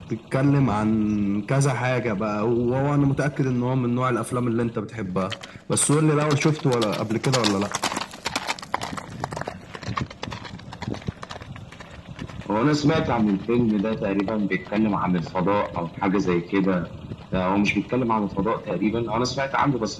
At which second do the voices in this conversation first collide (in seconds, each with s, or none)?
none